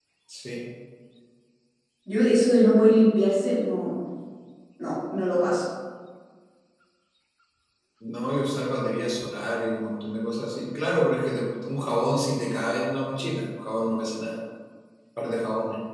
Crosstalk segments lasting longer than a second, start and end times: none

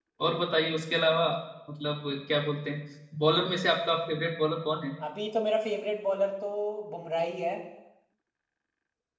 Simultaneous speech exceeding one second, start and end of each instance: none

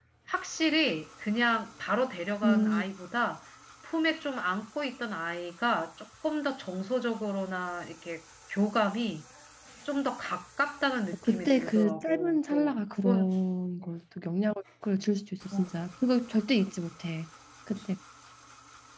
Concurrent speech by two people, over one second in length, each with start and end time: 11.3-13.3

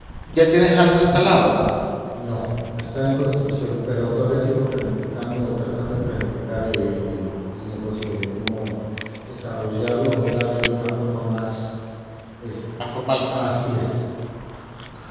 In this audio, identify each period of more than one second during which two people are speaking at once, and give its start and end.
none

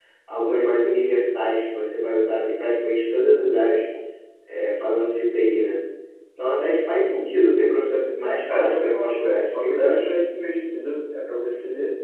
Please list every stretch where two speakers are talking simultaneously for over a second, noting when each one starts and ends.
8.5-10.1

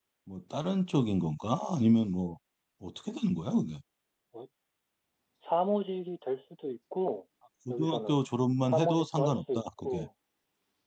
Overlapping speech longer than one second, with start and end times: 8.7-10.0

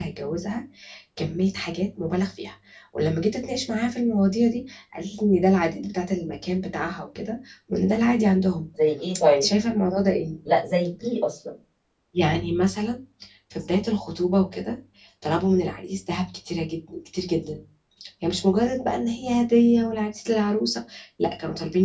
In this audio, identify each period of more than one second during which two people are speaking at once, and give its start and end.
none

